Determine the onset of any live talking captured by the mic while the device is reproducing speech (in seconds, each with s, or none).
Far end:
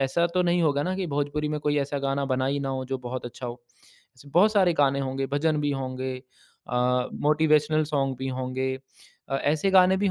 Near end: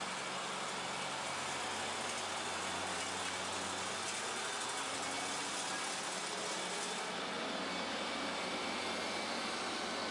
none